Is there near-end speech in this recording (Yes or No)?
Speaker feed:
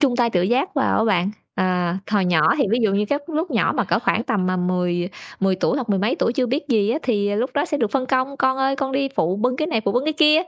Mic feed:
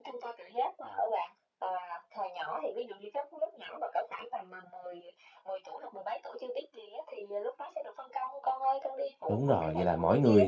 Yes